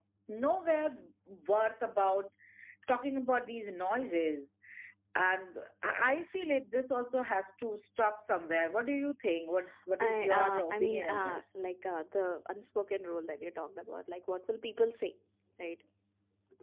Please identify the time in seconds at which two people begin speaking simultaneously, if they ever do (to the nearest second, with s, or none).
10 s